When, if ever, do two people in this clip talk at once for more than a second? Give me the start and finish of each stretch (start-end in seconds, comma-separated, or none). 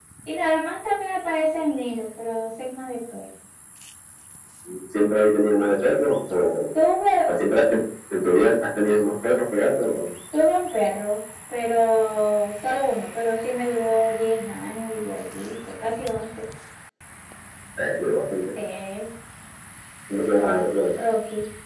none